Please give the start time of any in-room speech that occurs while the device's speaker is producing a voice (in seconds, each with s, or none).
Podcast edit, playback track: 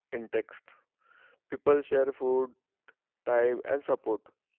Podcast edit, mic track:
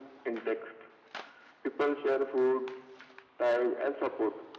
none